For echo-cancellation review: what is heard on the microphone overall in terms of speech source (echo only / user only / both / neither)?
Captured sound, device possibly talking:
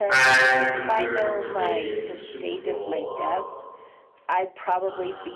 both